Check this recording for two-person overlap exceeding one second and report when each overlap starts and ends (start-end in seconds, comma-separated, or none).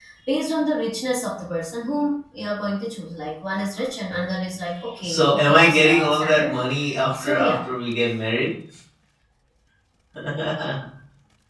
5.0-6.6